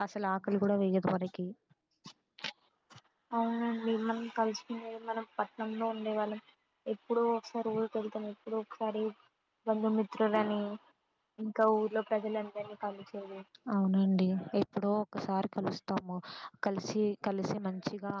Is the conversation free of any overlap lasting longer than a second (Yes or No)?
Yes